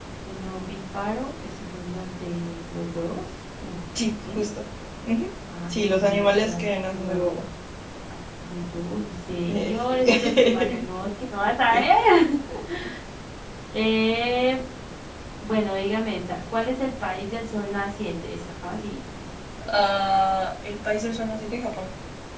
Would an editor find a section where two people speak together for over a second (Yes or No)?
Yes